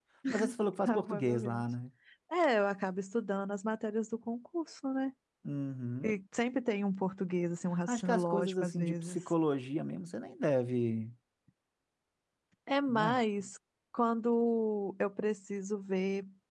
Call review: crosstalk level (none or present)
present